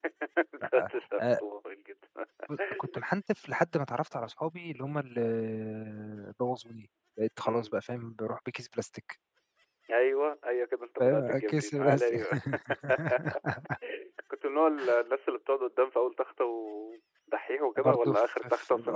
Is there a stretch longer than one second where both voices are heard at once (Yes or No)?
Yes